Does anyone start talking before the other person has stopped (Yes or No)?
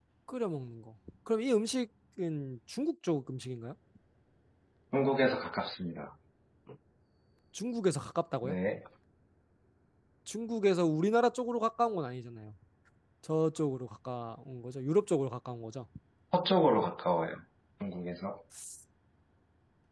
No